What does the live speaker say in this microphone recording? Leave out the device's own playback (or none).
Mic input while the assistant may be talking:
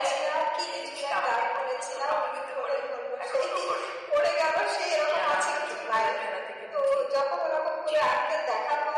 যারা আমরা ছোটবেলায় খেলা থেকে বুঝি